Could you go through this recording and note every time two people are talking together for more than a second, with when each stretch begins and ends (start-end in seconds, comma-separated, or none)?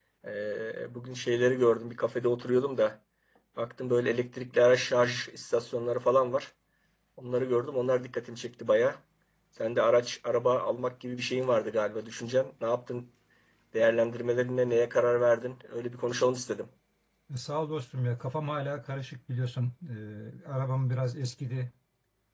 none